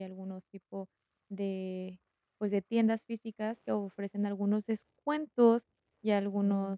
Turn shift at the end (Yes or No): No